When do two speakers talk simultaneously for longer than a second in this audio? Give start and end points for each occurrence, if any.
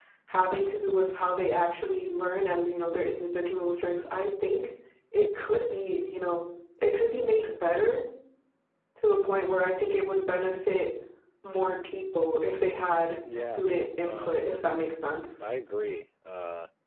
none

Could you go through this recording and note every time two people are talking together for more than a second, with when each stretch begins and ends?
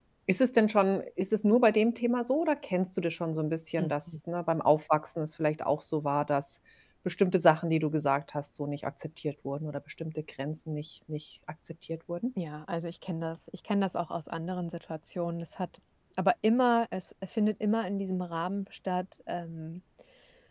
none

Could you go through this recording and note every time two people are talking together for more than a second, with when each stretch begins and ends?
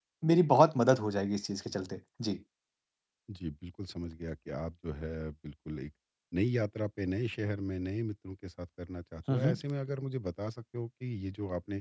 none

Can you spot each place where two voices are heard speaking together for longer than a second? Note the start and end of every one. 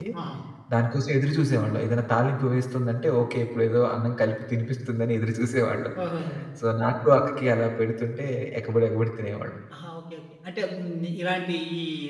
none

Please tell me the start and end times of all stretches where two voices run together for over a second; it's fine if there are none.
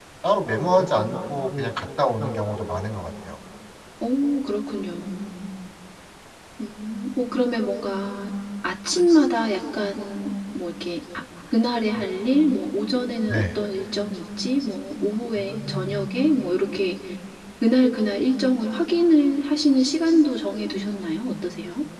none

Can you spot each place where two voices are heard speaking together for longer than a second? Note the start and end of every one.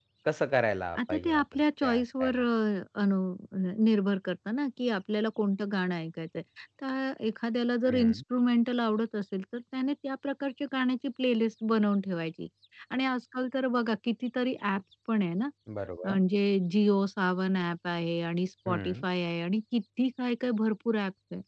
1.1-2.4

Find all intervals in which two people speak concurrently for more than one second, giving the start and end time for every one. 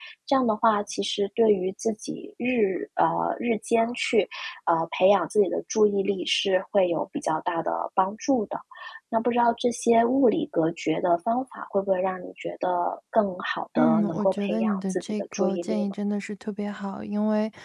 13.8-15.9

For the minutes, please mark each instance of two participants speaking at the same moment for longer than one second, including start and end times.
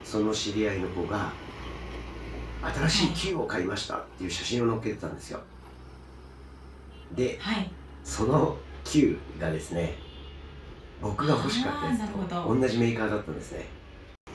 11.2-12.5

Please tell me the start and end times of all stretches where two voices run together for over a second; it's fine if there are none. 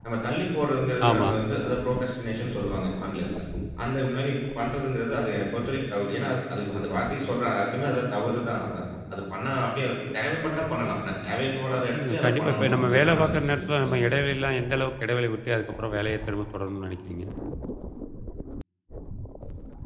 12.0-14.2

